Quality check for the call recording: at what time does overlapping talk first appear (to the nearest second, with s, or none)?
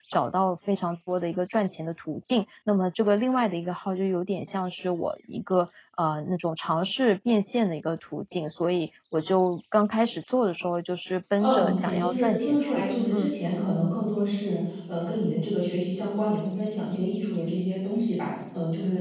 11 s